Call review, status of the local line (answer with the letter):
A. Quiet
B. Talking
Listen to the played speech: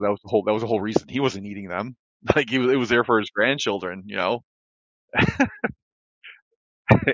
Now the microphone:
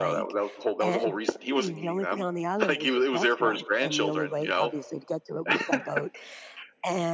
B